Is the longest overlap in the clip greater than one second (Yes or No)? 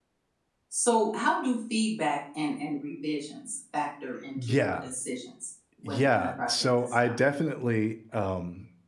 Yes